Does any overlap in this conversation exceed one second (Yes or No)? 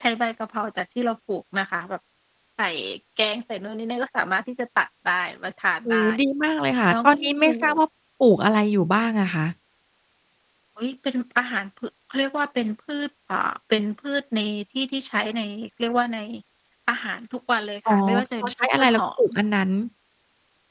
Yes